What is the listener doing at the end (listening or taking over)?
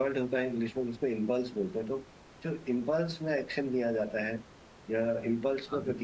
listening